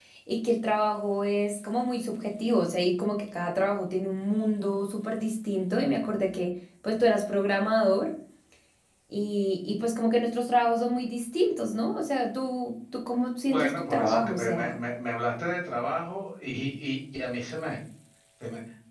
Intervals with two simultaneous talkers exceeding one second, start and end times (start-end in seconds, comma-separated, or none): 13.4-14.8